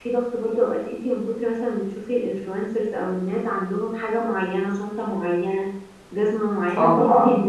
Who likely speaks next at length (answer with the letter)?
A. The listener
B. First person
B